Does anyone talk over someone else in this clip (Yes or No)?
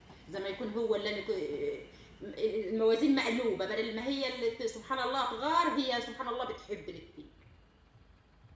No